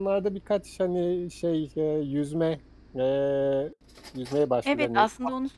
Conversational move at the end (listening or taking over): taking over